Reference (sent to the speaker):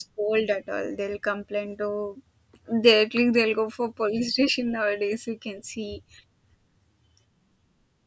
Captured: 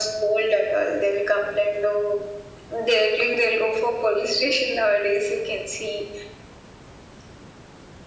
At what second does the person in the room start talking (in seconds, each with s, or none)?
none